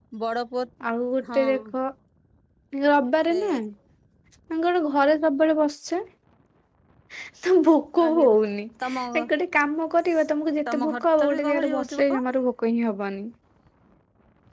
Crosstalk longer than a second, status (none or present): present